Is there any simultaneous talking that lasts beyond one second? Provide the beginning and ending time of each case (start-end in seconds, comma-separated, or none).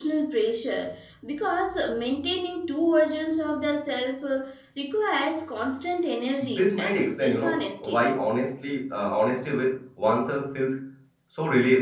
6.4-8.1